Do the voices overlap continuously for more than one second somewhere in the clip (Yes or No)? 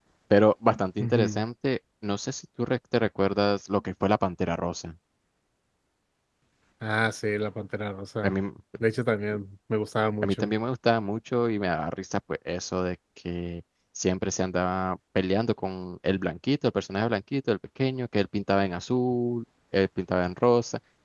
No